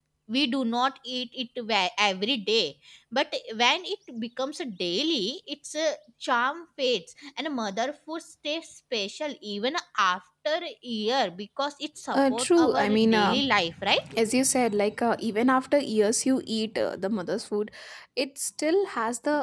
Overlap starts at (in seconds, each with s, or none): 12.1 s